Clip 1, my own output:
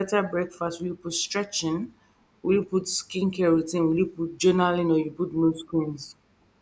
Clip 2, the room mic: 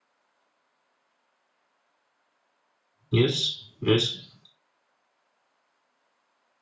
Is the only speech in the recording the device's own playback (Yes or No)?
No